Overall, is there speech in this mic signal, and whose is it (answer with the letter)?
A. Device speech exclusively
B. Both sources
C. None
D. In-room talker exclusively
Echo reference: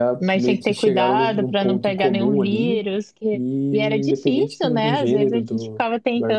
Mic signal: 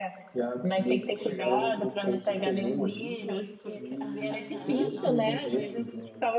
B